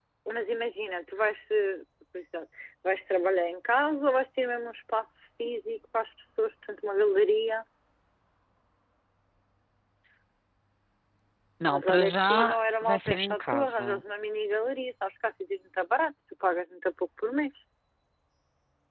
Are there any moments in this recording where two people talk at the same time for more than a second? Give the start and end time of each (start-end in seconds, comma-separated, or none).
11.7-14.0